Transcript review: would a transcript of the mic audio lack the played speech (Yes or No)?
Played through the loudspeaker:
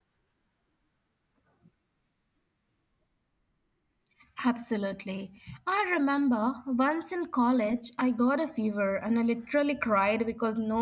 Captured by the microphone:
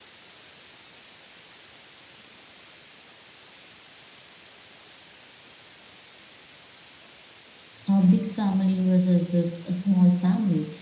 Yes